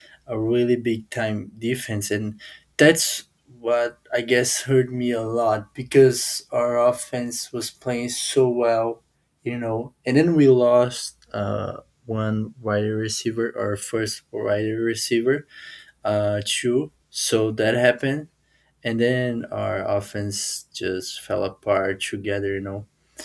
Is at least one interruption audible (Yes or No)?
No